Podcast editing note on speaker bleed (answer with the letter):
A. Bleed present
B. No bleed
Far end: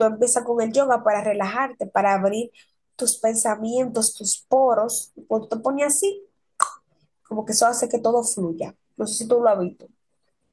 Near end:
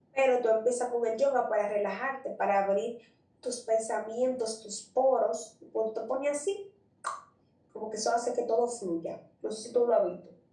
A